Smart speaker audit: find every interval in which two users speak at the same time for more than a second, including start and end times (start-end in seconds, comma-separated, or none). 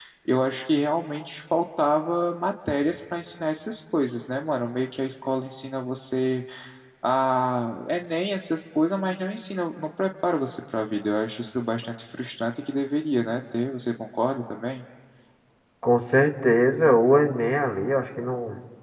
none